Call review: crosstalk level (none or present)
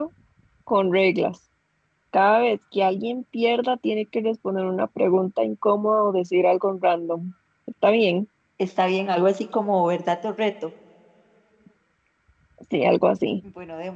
none